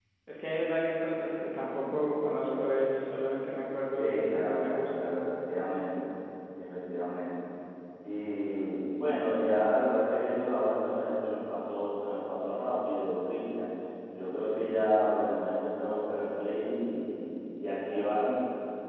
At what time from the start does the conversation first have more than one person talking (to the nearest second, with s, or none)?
4 s